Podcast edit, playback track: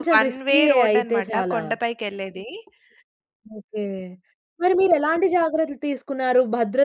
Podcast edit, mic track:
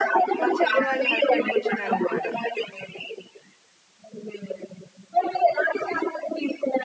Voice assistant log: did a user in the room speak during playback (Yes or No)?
Yes